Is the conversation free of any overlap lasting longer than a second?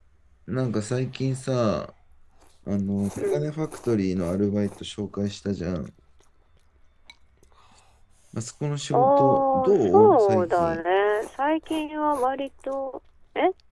No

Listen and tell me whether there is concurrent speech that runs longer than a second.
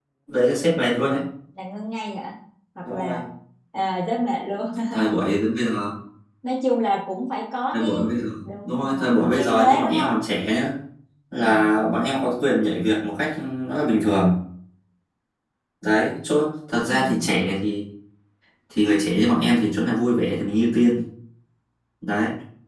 Yes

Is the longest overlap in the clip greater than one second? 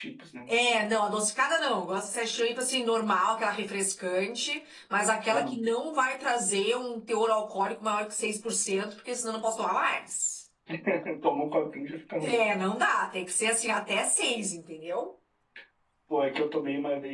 No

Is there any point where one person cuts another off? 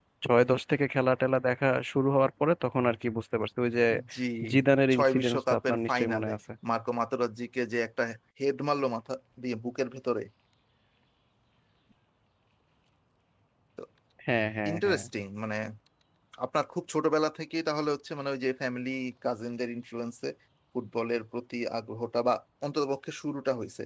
Yes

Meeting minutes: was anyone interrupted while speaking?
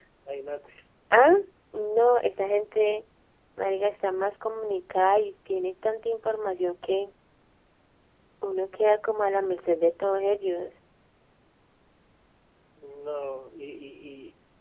No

